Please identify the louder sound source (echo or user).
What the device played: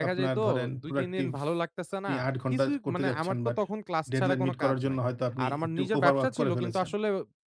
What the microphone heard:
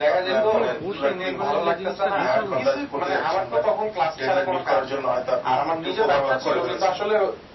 echo